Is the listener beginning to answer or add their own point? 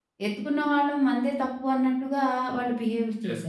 Yes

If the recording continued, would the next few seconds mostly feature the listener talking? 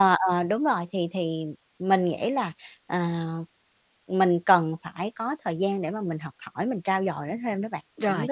Yes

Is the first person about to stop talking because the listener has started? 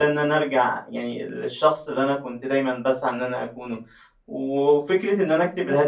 No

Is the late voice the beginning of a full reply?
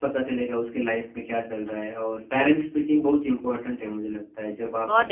Yes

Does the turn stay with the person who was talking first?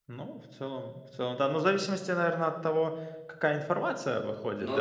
Yes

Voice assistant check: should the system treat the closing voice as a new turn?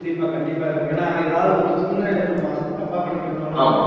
No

